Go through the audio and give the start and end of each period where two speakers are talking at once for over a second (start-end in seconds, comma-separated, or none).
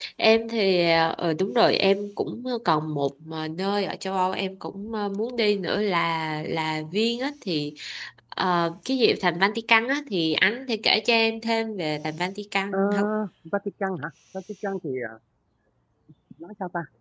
none